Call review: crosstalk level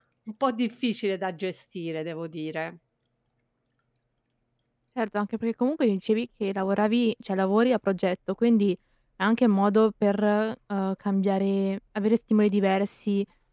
none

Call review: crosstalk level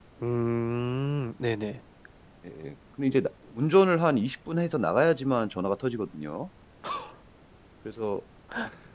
none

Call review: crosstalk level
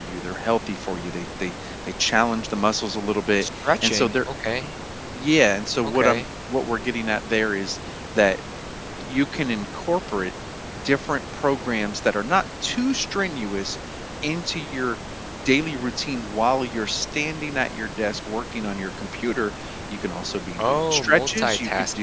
present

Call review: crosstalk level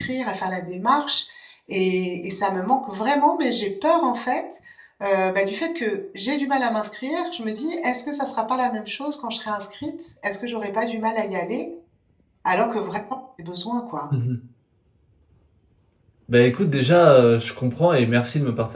none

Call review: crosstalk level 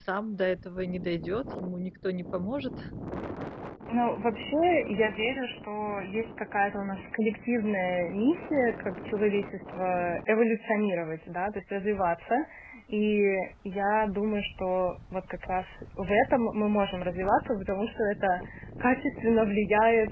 none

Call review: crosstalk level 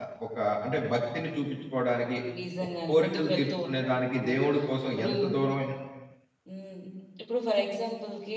present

